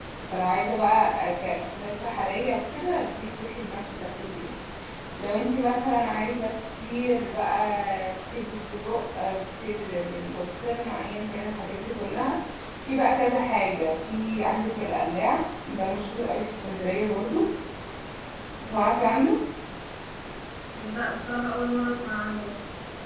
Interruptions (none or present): none